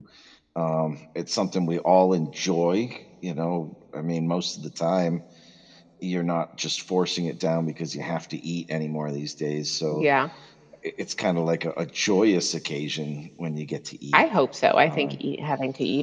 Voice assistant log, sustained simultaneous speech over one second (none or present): none